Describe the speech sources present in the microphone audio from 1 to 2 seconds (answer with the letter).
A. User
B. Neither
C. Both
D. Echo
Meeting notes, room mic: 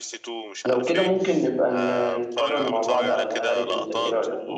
C